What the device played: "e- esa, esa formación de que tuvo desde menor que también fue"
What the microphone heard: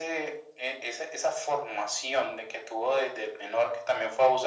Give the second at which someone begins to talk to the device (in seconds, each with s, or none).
none